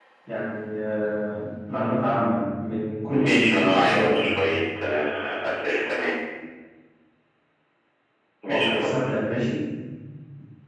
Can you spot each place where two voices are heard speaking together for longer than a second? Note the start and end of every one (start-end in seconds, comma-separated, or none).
3.1-4.4